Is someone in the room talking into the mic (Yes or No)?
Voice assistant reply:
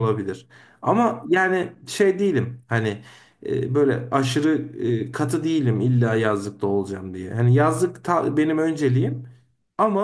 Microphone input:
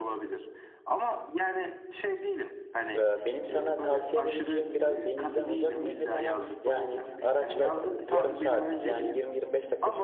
Yes